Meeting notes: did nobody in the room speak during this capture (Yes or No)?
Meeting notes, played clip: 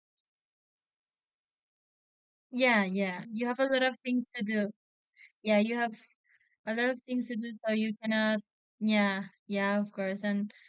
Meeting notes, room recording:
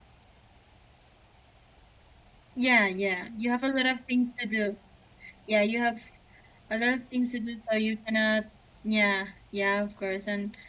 Yes